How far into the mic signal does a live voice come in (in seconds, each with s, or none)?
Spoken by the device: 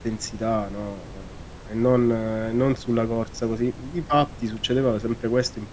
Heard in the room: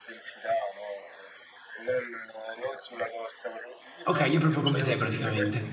4.1 s